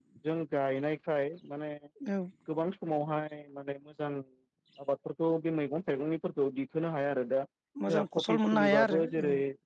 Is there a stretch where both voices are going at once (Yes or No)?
Yes